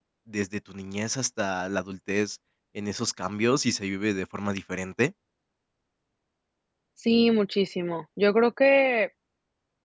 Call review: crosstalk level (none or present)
none